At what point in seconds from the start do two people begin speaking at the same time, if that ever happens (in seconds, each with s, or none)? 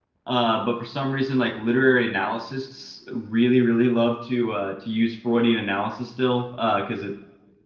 none